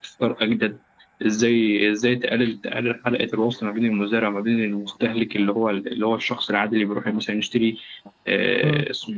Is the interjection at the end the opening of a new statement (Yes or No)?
No